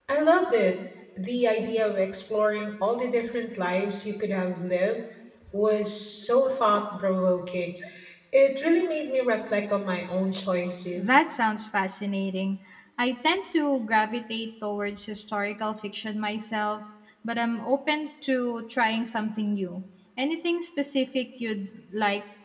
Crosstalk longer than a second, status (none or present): none